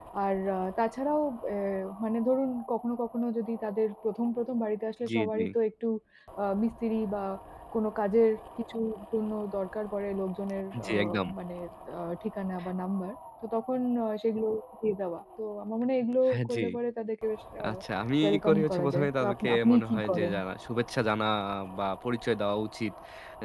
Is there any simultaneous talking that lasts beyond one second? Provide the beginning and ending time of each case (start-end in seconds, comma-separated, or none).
18.2-20.3